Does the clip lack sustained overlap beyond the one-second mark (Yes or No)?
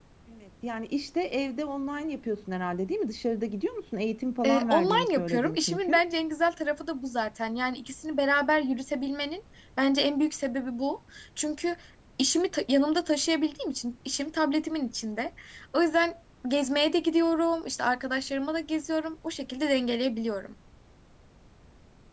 No